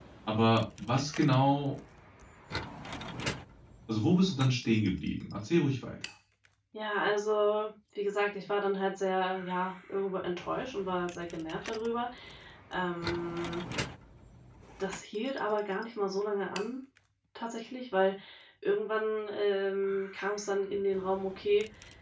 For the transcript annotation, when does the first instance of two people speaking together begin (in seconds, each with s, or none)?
none